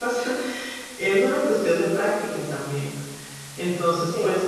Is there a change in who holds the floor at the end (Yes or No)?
No